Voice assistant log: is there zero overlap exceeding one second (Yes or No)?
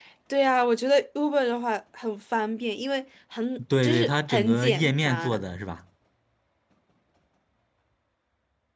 No